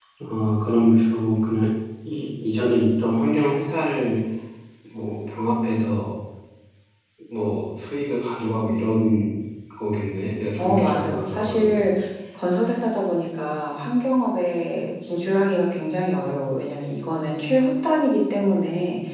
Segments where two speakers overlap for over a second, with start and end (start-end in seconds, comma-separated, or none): 10.6-11.8